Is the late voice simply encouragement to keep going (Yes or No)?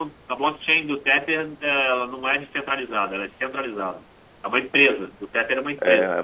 No